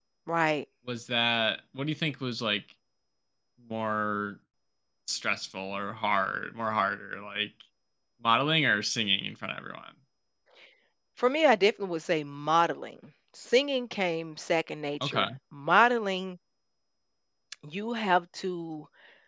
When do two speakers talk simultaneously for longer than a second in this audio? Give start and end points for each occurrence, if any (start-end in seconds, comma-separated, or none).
none